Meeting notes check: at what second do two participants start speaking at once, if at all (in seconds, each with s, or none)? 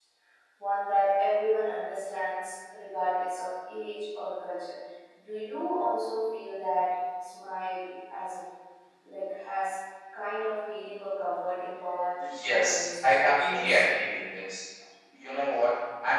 12.2 s